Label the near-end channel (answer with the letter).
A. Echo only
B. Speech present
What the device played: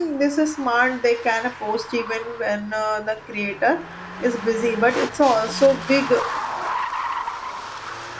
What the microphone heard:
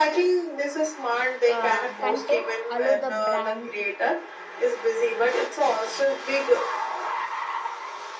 B